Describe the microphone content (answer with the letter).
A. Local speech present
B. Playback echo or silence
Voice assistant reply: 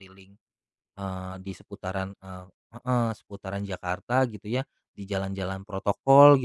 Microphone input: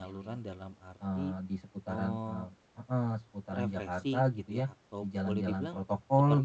A